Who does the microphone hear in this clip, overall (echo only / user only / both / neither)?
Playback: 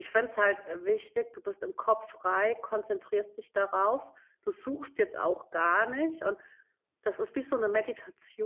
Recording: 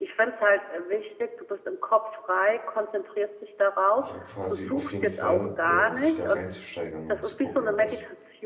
both